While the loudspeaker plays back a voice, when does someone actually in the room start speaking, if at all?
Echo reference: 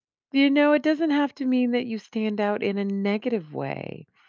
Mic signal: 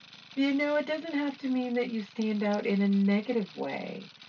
none

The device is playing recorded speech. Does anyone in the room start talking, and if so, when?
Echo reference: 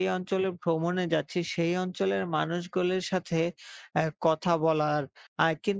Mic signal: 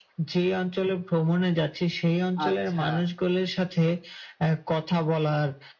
2.4 s

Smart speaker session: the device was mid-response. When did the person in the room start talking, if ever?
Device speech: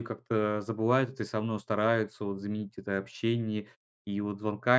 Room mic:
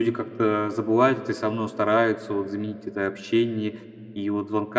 none

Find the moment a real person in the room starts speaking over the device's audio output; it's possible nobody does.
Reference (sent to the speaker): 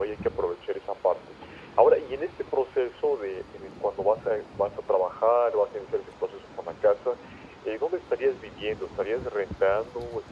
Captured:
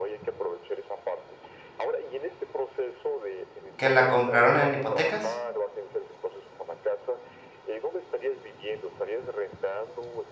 3.8 s

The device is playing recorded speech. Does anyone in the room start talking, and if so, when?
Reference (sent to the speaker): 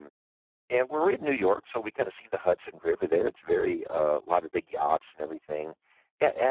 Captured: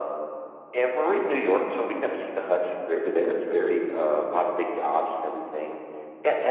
none

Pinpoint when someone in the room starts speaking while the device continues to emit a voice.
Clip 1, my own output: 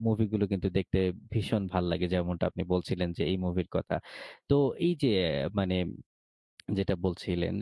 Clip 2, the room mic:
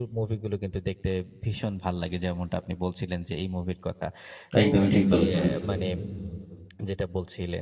4.6 s

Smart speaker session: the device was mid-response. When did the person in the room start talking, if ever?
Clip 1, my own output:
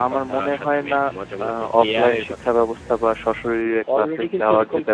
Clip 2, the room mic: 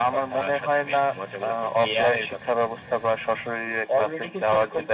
none

